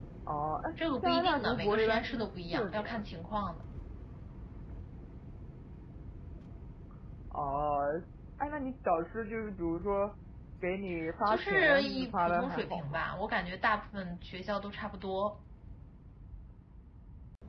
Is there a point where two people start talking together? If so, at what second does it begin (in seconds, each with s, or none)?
1.0 s